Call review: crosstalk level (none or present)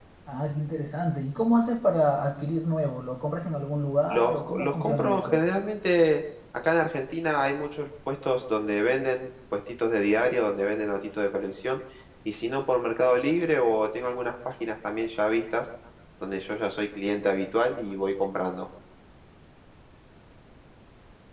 present